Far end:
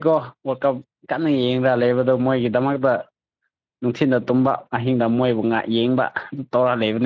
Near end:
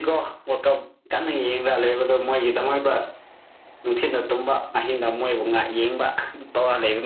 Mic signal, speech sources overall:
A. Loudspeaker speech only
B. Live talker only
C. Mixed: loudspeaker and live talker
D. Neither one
A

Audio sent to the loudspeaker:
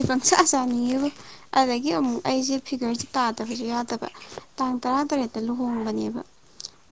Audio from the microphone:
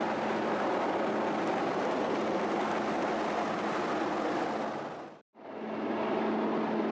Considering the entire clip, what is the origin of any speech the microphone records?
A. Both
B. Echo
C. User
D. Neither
D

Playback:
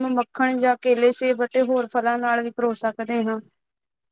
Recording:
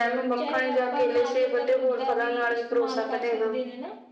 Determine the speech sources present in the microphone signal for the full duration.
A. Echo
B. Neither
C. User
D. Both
D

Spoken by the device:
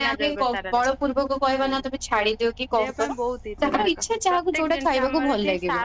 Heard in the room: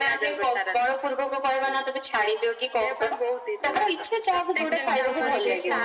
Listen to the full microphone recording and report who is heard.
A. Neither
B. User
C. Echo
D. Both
D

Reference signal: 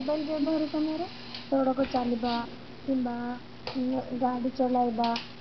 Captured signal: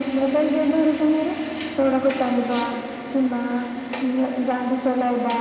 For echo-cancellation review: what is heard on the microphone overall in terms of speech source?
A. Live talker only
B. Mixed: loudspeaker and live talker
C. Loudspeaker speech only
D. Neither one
C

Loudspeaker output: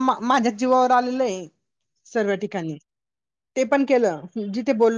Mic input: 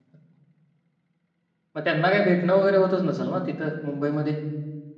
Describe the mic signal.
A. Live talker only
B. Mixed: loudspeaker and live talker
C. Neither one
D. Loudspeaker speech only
A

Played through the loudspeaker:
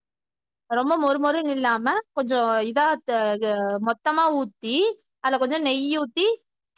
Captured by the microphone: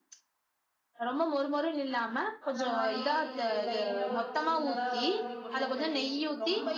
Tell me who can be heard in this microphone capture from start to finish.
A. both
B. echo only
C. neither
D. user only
A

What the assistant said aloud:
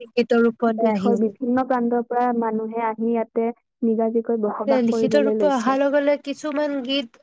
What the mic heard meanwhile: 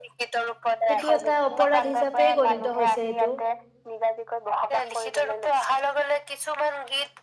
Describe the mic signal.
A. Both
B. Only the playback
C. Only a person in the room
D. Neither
A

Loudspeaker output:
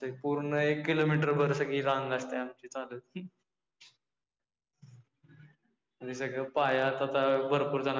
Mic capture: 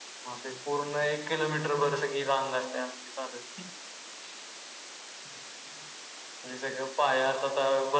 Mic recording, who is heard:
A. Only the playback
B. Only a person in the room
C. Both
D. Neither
A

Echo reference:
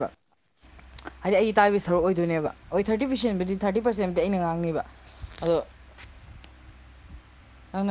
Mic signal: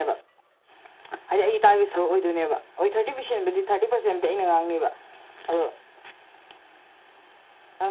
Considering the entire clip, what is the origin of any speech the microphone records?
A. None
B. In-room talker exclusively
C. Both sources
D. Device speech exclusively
D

